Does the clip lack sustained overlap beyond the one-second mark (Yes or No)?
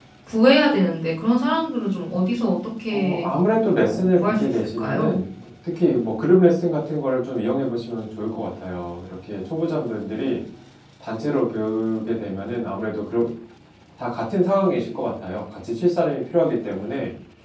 No